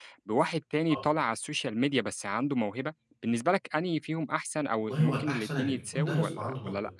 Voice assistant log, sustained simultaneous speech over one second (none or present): present